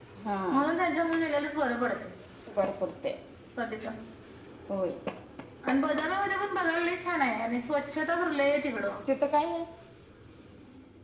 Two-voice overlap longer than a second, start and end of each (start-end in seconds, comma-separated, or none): none